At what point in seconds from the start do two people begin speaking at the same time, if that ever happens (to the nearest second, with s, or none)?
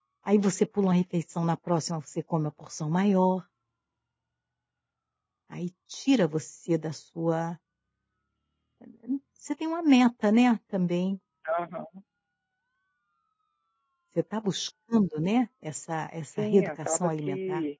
16 s